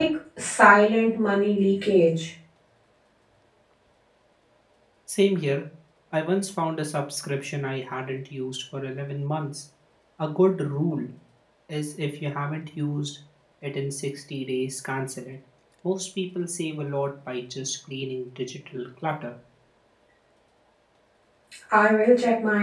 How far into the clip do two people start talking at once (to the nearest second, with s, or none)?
none